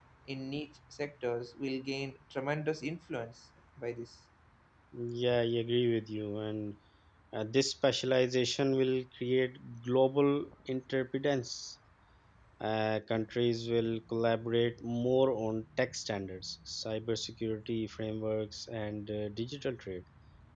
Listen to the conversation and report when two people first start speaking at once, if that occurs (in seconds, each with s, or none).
none